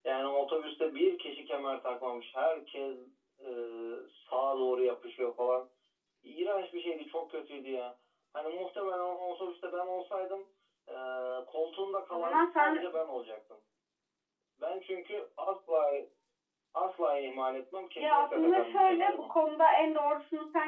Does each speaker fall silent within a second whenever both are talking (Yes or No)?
No